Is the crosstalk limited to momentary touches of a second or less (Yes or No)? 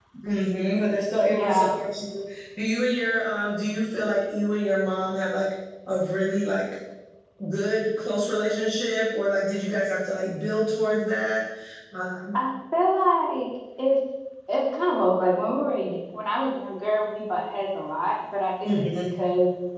Yes